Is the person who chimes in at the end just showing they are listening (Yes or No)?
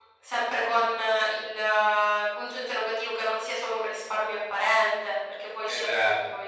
No